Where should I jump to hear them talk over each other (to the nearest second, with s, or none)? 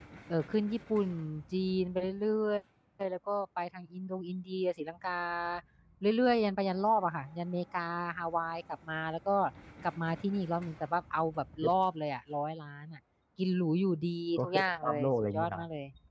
14 s